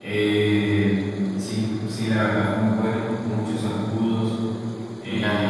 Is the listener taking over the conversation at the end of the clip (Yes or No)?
Yes